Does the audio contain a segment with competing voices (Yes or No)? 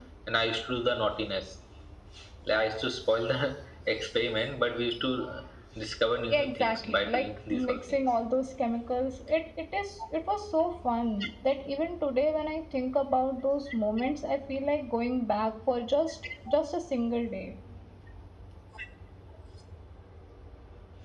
Yes